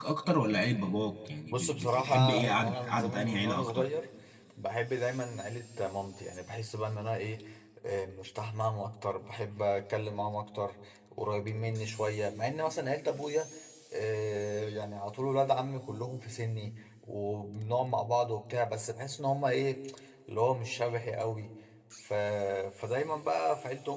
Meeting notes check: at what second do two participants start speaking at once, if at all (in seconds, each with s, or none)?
1.5 s